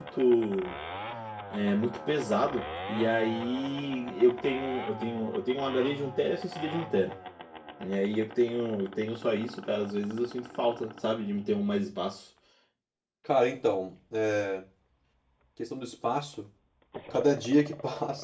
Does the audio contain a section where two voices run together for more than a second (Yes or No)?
No